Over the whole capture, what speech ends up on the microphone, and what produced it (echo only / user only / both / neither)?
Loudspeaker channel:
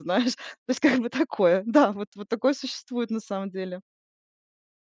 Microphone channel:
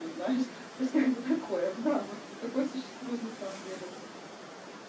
echo only